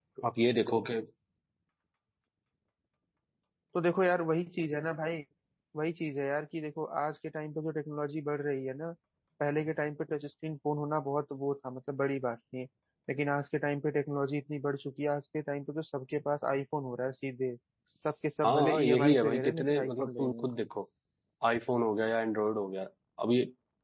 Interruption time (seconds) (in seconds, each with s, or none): 18.4 s